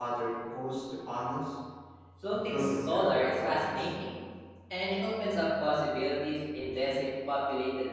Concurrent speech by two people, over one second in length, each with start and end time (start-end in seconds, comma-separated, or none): 2.3-3.9